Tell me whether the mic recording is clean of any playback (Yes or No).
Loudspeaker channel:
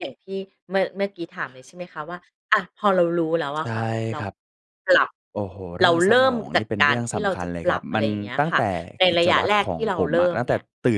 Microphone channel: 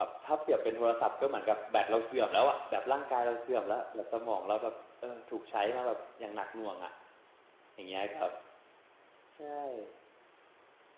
Yes